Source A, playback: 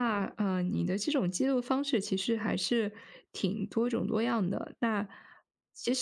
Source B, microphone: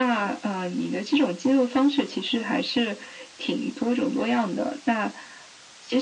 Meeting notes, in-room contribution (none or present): none